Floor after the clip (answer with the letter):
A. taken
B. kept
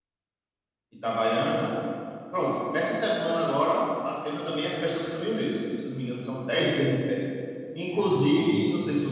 B